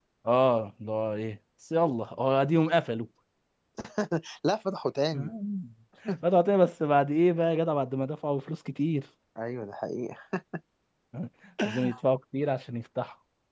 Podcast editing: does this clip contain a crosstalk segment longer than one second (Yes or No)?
No